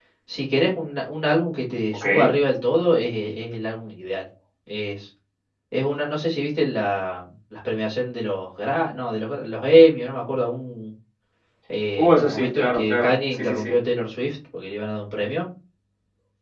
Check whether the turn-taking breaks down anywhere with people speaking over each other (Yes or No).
Yes